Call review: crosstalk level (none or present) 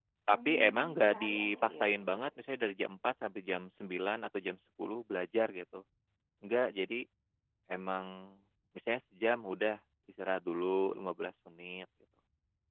present